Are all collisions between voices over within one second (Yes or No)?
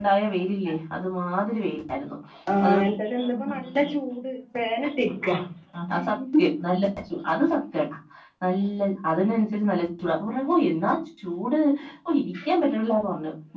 No